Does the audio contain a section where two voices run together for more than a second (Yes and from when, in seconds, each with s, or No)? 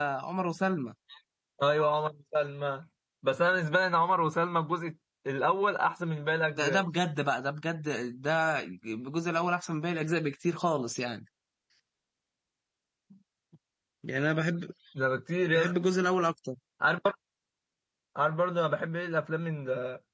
No